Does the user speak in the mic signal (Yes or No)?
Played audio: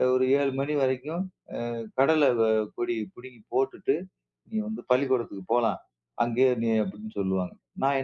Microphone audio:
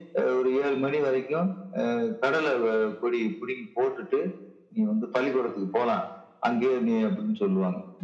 No